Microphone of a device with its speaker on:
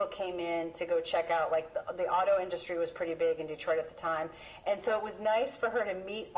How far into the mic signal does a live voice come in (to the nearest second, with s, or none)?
none